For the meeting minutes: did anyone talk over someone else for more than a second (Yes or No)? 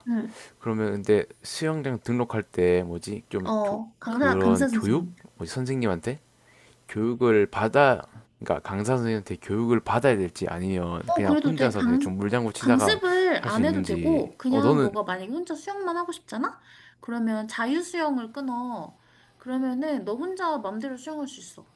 Yes